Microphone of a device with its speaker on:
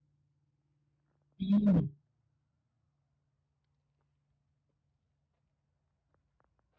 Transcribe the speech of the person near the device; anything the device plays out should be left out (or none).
อืม